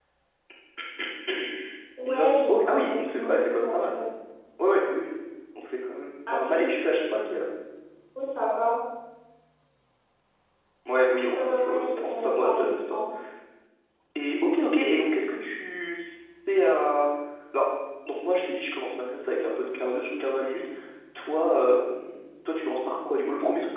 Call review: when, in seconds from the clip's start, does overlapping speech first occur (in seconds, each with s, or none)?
2.1 s